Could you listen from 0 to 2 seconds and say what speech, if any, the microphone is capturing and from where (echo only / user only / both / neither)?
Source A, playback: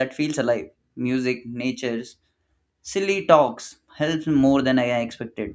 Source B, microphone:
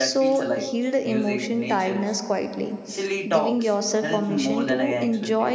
both